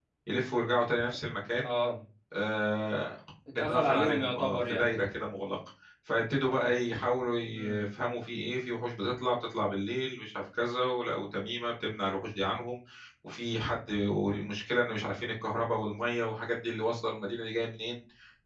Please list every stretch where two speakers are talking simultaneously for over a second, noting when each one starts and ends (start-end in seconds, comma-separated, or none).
3.6-4.9